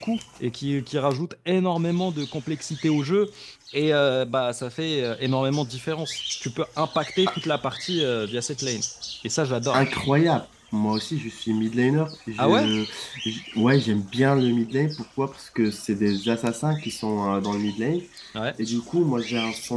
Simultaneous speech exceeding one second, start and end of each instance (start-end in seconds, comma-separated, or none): none